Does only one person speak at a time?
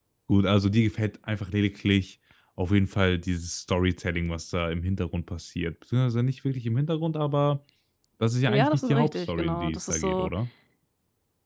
No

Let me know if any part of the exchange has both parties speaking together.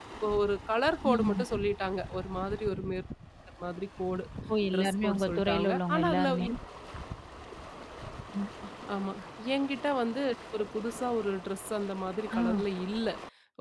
Yes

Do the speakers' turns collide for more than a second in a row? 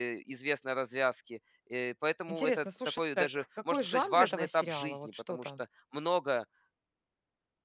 Yes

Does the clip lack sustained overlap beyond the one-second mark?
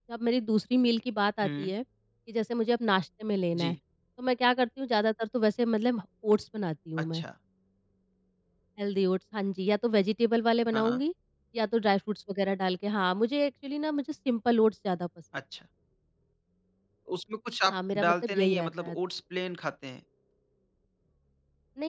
No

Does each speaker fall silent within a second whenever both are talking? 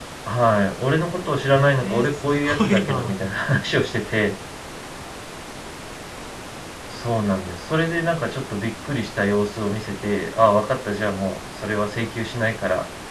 No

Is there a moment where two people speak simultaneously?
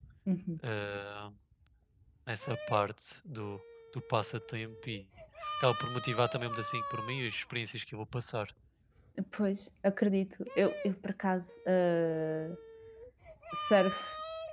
No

